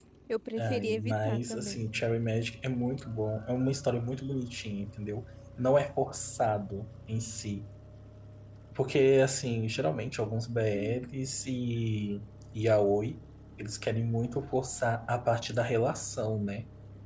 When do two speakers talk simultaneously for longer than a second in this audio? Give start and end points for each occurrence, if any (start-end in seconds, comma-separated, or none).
0.6-1.9